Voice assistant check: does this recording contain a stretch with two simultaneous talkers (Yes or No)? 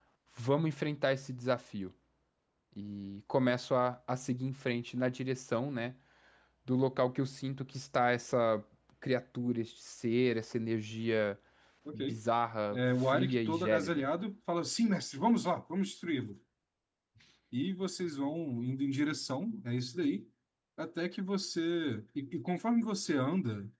Yes